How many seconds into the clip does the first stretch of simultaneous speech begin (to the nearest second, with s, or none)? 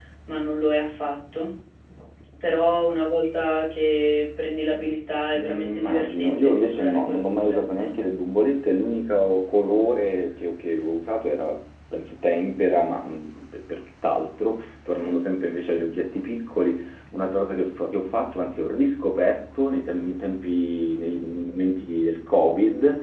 5 s